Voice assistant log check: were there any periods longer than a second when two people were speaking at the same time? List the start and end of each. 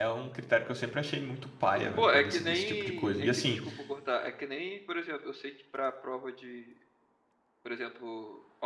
2.0-3.6

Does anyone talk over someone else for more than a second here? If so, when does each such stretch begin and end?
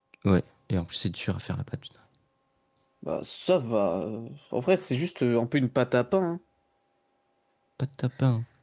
none

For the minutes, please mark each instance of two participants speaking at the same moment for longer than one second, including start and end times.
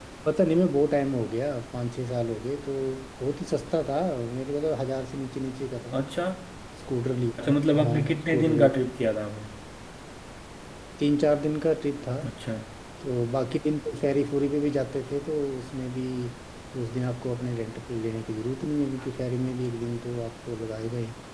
7.4-8.8

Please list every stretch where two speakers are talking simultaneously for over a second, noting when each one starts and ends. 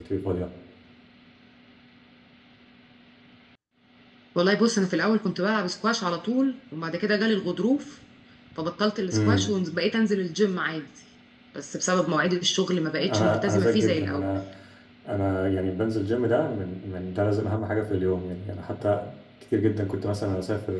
13.0-14.3

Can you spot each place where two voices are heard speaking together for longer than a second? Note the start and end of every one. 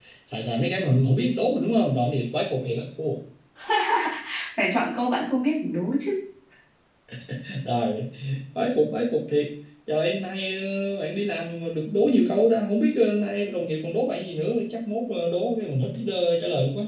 none

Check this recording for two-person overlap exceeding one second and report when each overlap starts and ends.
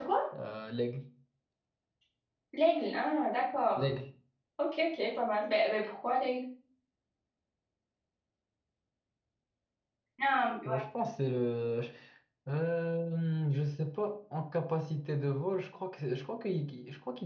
none

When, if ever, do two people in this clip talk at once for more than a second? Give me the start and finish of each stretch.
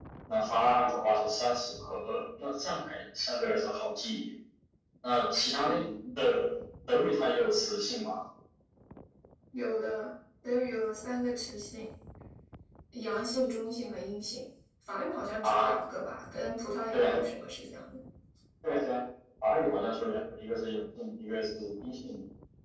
none

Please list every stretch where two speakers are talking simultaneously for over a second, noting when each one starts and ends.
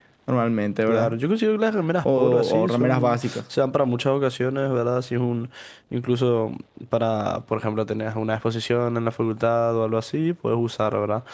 2.0-3.4

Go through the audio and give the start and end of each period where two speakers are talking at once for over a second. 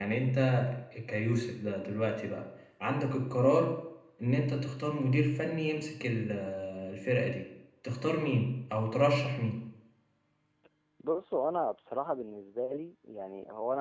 none

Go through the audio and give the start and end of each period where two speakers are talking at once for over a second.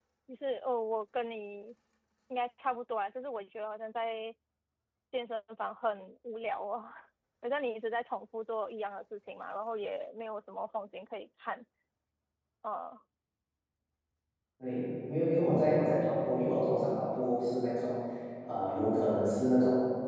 none

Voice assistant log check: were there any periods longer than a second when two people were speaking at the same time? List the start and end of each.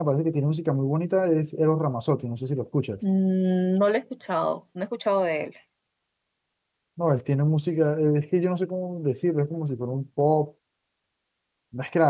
none

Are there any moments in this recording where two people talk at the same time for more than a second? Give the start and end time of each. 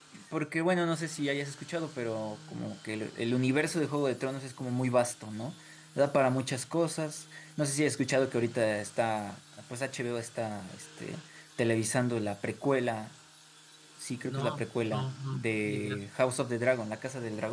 14.3-16.0

